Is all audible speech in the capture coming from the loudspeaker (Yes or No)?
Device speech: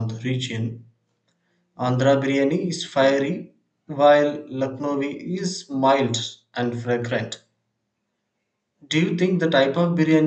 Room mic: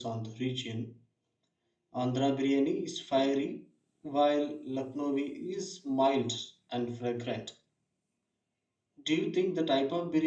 Yes